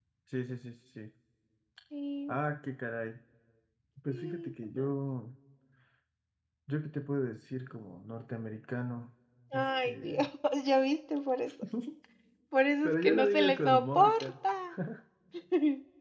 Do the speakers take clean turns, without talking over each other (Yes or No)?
No